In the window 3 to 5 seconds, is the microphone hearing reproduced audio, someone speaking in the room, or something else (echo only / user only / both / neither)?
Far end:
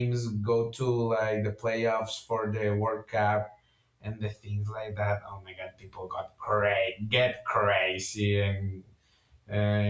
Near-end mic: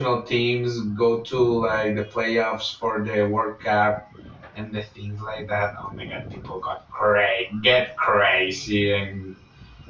echo only